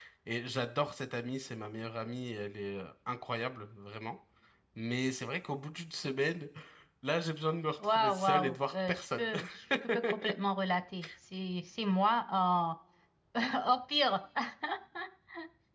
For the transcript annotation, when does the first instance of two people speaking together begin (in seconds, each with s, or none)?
7.8 s